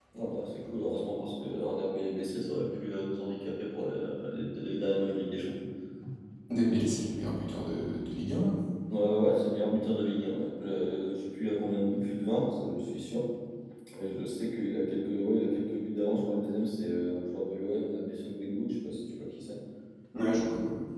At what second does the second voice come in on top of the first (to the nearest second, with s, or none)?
none